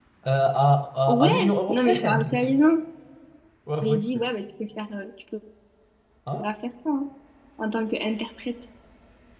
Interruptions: present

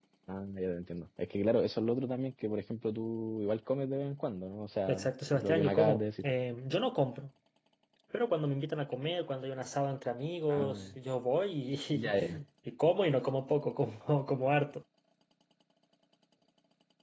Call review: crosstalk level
present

